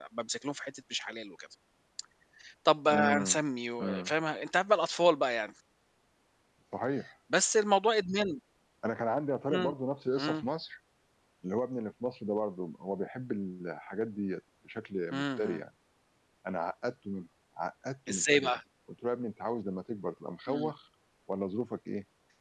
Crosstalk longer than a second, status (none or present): none